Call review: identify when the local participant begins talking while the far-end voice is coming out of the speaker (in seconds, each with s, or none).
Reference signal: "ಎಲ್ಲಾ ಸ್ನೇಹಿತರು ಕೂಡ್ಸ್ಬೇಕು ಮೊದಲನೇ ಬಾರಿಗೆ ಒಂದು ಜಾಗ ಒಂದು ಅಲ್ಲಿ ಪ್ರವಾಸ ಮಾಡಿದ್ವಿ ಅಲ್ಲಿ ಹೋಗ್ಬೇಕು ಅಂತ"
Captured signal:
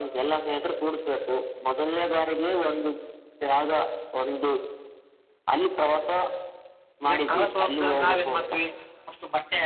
7.1 s